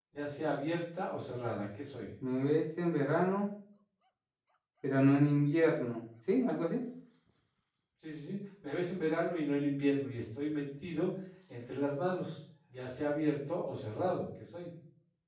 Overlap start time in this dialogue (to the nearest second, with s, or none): none